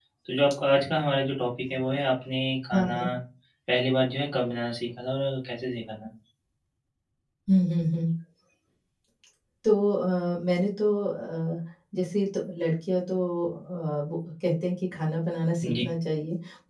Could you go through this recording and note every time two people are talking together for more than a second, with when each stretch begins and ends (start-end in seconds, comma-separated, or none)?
none